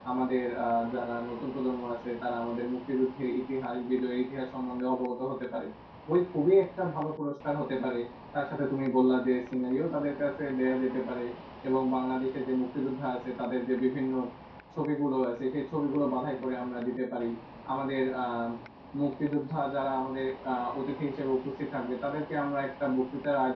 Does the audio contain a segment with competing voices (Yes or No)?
No